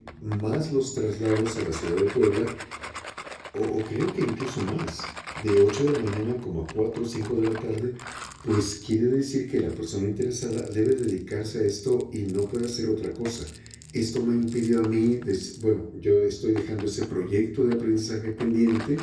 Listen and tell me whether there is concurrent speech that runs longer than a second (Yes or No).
No